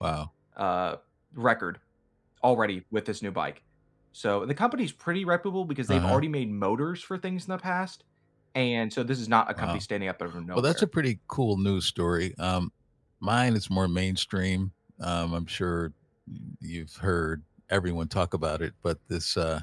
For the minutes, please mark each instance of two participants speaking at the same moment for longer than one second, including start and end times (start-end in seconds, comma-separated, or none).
none